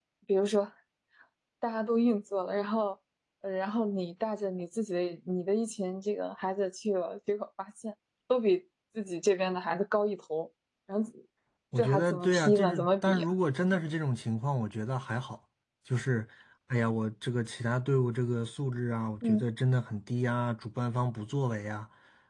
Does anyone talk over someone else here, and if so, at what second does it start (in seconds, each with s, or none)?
11.8 s